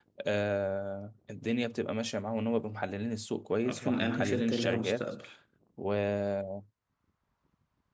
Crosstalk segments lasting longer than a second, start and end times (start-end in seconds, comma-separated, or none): 3.7-5.0